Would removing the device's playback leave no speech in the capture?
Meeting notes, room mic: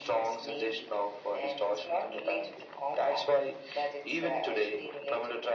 Yes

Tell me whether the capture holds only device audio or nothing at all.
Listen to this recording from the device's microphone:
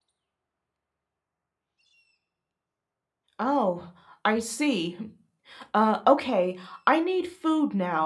No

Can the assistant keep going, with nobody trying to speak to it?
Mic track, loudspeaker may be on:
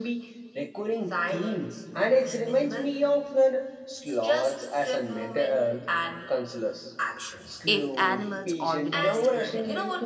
No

